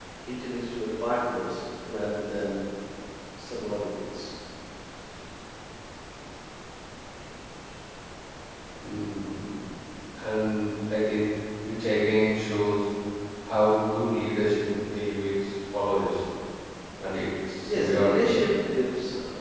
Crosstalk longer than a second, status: none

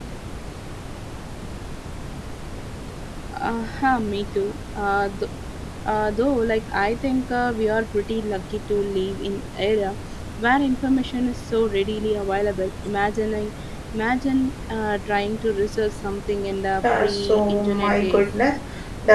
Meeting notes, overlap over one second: present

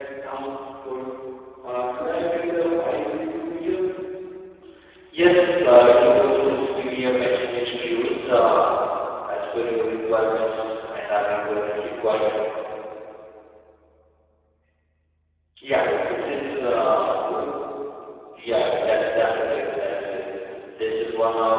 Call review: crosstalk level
present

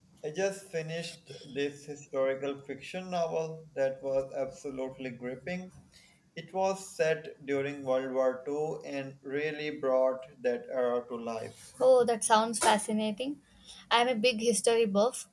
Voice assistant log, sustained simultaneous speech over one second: none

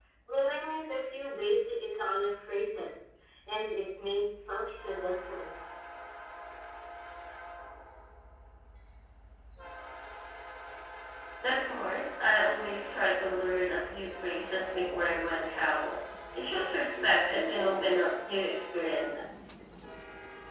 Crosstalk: none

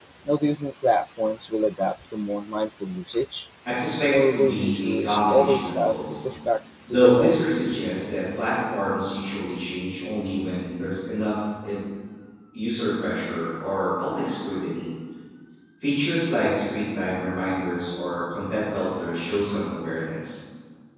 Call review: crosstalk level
present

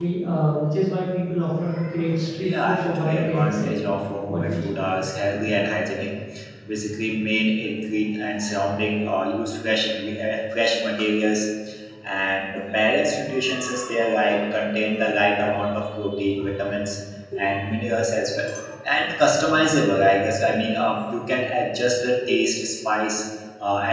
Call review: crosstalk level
present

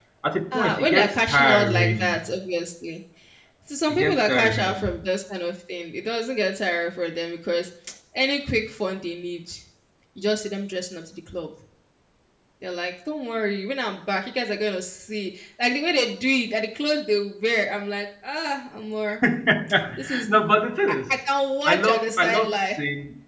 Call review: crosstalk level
present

